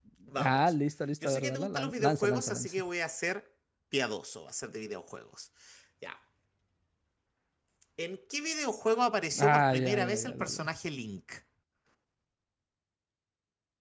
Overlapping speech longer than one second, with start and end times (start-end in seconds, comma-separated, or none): 1.2-2.8, 9.4-10.7